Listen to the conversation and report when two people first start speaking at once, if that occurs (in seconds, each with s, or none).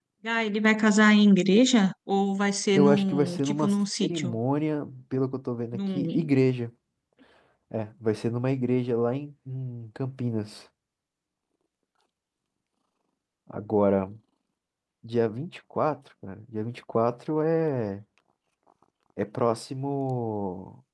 2.7 s